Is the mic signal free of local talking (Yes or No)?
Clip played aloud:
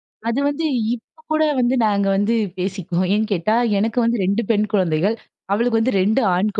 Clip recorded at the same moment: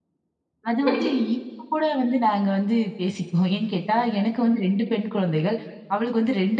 No